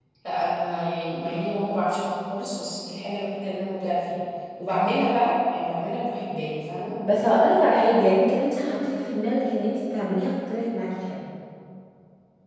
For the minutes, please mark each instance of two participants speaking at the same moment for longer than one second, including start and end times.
none

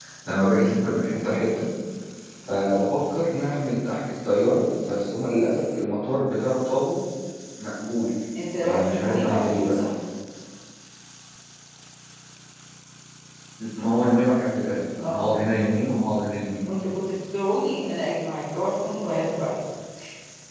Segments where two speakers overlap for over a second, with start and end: 8.6-9.8

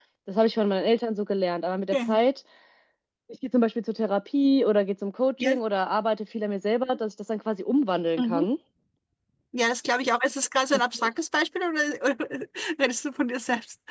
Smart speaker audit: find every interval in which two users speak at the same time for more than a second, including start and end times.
none

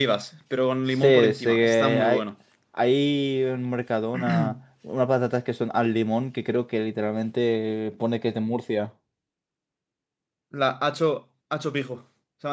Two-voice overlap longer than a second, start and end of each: 0.9-2.2

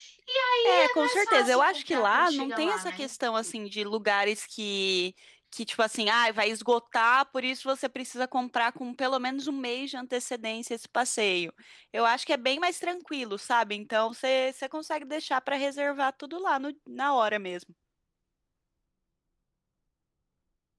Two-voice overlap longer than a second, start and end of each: 0.6-3.1

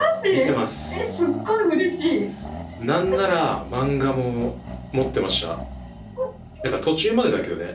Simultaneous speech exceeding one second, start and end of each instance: none

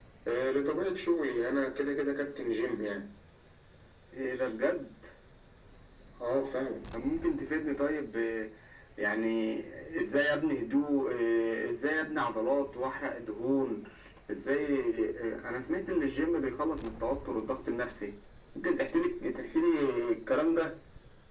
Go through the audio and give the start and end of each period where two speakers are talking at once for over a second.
none

